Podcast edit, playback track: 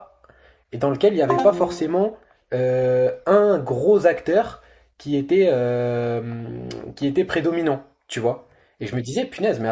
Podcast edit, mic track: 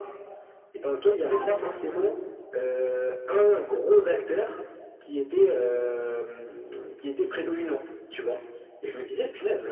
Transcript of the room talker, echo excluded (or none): none